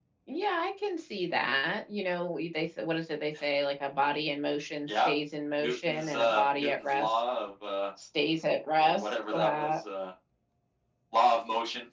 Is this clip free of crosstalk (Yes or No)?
No